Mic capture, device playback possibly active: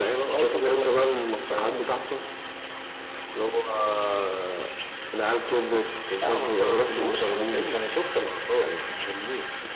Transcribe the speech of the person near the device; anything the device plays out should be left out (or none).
none